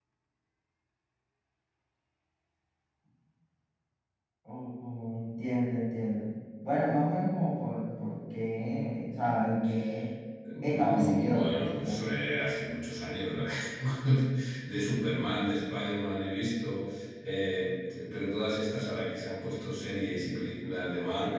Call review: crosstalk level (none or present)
present